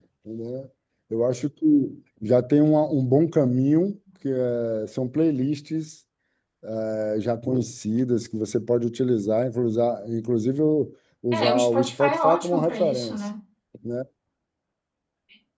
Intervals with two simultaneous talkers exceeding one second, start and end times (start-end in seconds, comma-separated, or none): 11.4-13.2